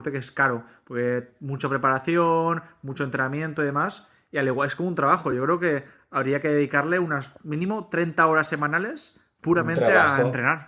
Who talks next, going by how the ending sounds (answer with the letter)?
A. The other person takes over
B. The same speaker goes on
A